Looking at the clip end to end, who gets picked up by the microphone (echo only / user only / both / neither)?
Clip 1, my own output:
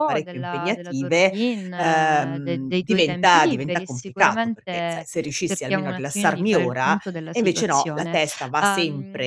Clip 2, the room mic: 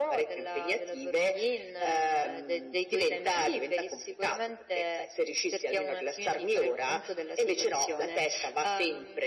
echo only